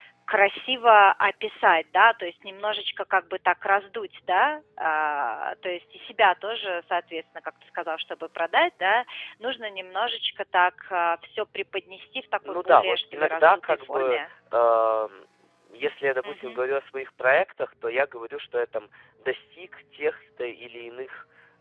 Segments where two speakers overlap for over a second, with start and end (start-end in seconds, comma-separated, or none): 12.6-14.2